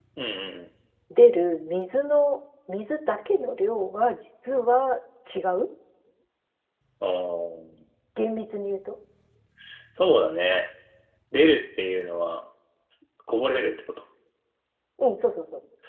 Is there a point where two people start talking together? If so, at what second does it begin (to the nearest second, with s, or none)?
none